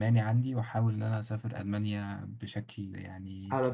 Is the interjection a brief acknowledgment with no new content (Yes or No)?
No